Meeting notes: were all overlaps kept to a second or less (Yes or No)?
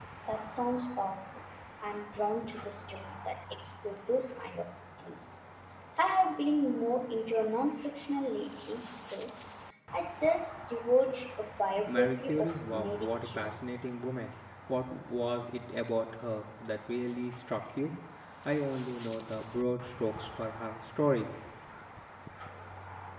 No